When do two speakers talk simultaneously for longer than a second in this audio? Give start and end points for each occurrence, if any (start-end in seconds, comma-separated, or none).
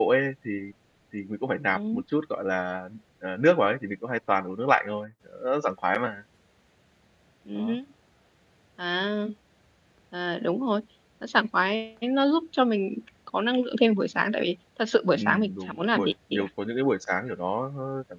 15.2-16.5